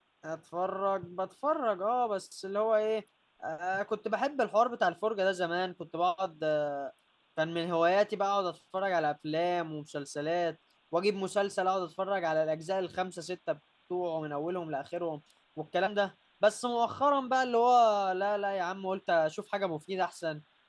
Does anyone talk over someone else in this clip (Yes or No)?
No